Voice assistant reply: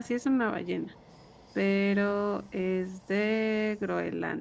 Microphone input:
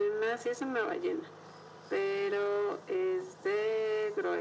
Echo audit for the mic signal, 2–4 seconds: echo only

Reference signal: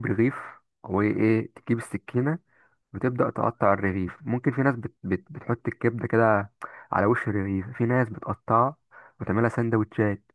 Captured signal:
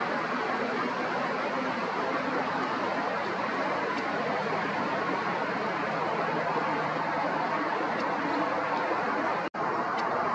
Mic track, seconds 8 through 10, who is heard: neither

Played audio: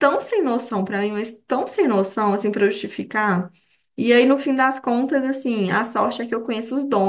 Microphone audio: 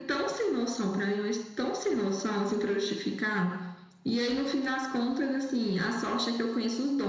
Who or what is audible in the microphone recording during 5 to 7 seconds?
echo only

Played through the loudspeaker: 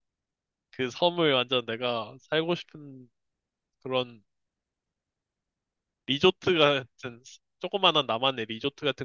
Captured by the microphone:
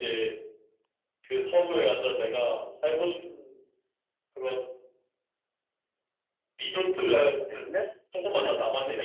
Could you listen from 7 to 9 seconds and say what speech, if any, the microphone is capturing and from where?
both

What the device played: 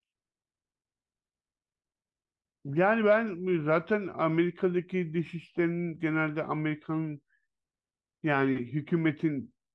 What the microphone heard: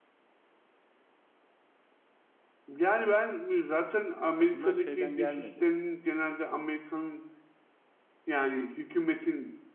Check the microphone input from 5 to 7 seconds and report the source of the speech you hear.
both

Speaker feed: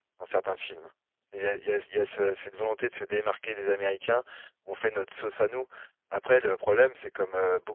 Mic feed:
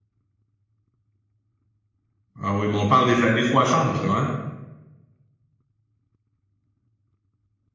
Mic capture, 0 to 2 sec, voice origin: neither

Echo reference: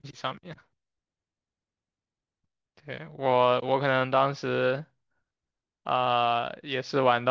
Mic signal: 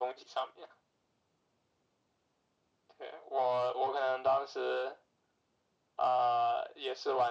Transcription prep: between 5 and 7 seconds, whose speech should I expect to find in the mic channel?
echo only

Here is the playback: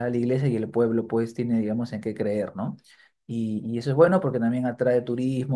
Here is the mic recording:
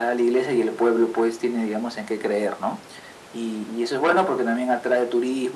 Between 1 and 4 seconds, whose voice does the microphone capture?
echo only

